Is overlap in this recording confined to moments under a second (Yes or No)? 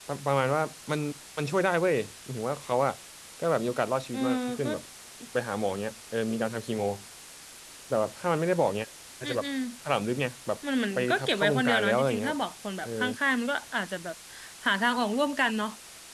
No